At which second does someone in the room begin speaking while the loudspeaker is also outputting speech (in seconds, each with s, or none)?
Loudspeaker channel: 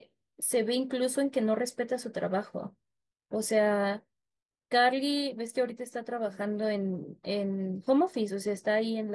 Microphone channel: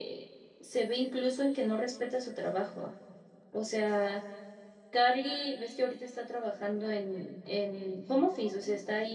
none